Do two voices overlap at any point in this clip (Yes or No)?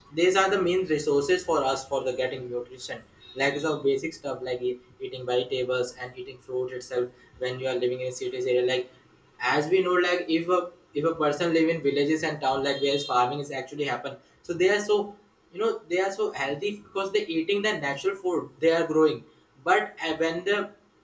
No